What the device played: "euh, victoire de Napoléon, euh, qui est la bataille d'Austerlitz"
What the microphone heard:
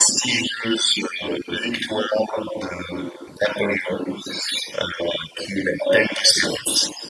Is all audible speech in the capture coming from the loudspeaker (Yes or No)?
Yes